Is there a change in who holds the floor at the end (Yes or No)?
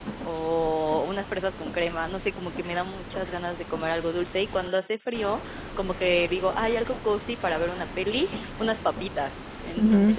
No